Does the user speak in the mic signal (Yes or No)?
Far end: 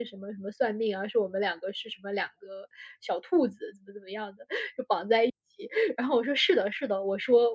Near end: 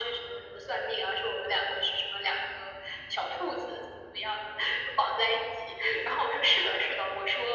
No